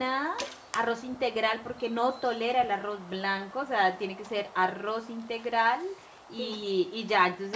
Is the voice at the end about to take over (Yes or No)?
No